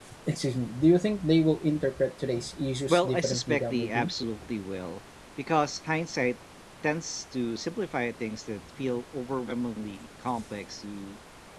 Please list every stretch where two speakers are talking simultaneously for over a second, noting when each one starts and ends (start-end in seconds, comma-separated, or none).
2.9-4.1